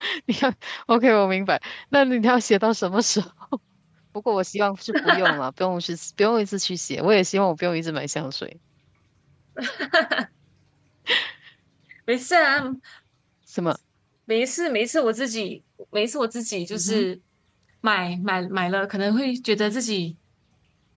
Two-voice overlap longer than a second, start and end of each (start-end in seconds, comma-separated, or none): none